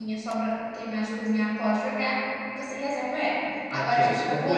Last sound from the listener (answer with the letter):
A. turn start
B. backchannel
A